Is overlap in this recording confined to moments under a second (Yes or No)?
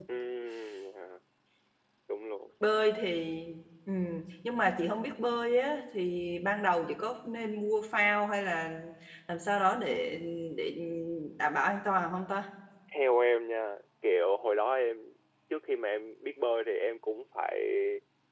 Yes